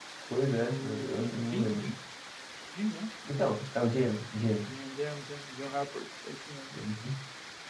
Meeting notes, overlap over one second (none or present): present